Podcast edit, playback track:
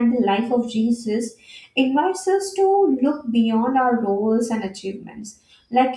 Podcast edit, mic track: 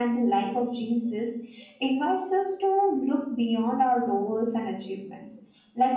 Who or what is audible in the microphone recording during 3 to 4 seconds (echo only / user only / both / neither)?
echo only